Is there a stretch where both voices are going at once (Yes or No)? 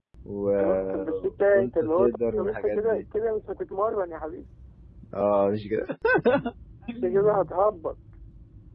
Yes